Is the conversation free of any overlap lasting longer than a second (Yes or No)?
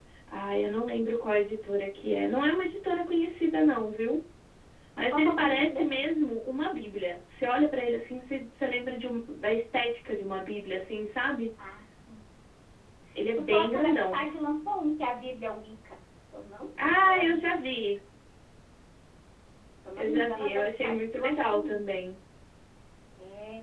No